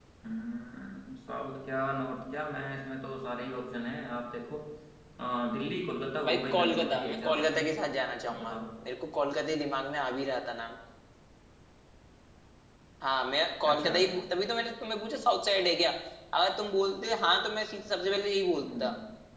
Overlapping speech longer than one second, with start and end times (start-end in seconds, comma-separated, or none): 6.2-7.7